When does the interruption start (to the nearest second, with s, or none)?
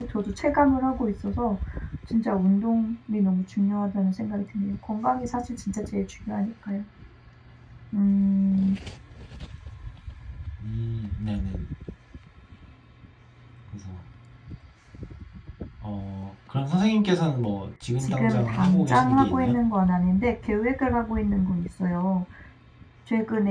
18 s